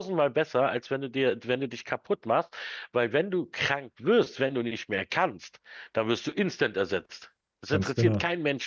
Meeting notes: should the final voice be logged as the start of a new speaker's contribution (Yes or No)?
No